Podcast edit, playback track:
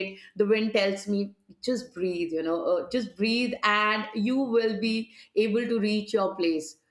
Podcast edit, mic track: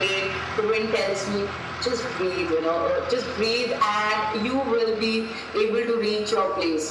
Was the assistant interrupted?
No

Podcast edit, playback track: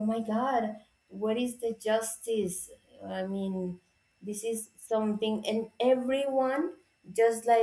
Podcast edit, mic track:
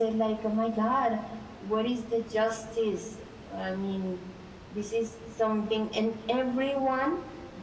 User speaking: No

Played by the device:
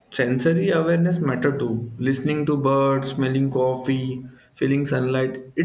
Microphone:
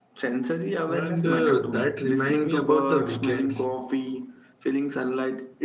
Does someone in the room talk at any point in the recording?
Yes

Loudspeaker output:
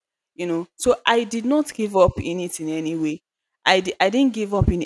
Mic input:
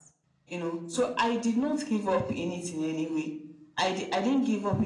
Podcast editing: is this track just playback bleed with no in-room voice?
Yes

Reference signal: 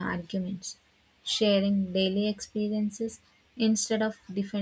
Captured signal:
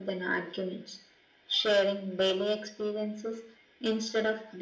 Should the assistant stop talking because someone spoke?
No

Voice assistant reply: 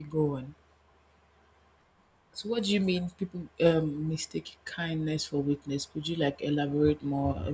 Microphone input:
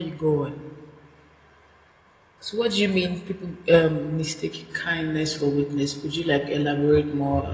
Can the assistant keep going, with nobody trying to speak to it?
Yes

